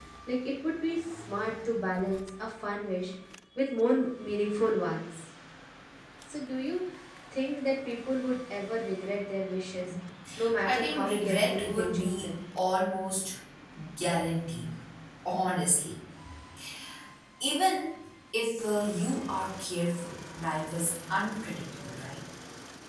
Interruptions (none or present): present